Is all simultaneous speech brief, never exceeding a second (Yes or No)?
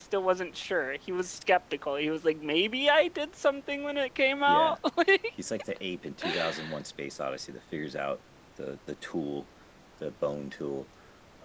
Yes